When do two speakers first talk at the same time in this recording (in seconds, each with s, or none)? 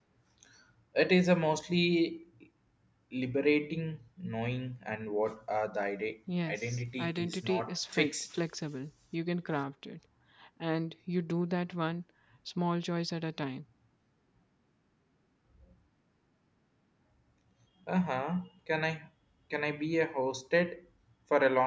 6.3 s